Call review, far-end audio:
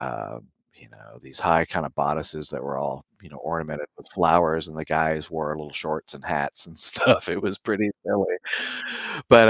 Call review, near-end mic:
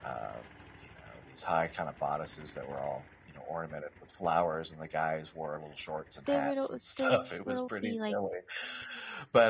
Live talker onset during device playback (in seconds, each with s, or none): 6.2 s